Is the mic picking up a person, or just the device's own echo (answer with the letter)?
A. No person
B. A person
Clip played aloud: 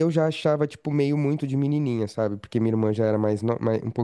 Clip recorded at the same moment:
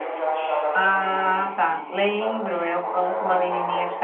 B